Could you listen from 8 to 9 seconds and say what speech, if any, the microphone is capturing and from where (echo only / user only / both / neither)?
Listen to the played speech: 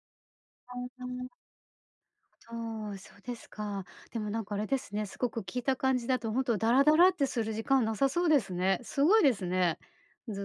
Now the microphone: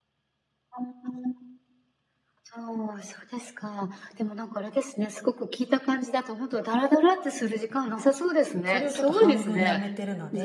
both